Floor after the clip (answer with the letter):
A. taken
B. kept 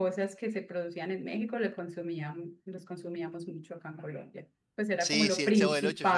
A